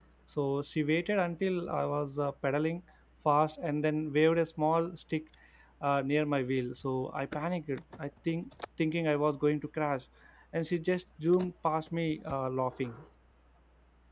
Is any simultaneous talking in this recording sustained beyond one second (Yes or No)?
No